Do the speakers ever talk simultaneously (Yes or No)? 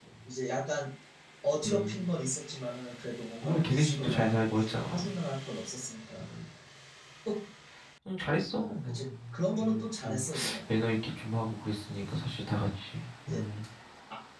Yes